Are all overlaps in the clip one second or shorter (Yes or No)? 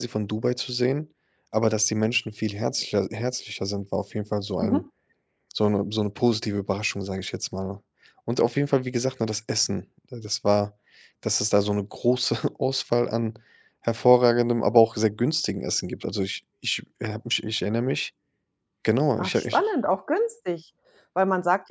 Yes